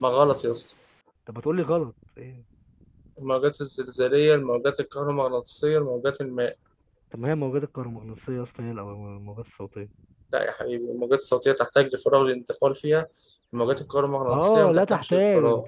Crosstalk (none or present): present